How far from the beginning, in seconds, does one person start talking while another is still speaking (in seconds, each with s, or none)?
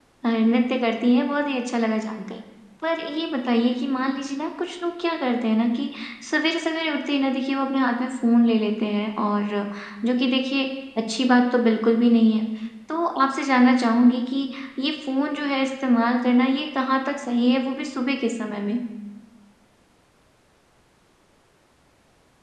none